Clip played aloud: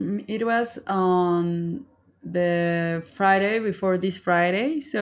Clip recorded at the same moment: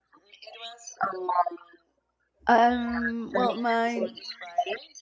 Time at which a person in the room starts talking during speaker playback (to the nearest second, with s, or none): 2 s